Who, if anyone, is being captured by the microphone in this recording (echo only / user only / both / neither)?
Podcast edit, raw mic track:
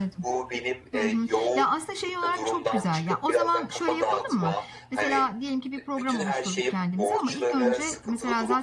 both